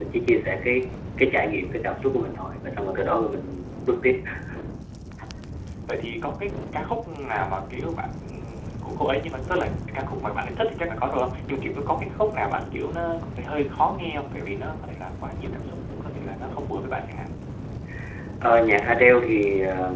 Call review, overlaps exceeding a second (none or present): none